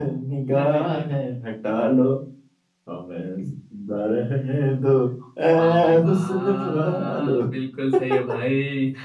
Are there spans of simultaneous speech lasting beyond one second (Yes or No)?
Yes